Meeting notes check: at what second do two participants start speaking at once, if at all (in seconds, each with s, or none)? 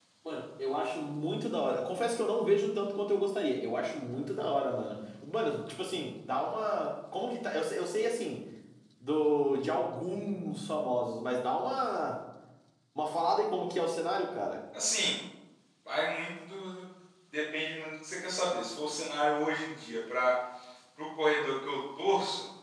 none